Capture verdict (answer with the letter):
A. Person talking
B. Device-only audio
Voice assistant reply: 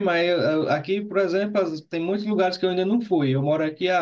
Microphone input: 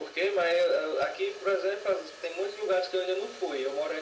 B